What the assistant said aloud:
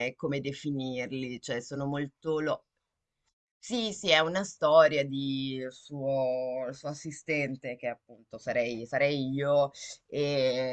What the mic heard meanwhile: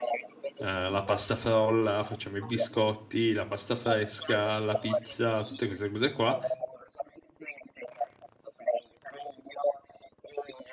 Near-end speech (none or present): present